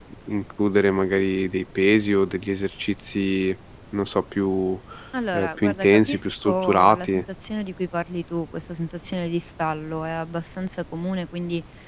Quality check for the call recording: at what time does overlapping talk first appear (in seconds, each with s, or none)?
5.3 s